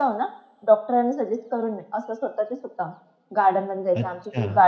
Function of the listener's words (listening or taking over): listening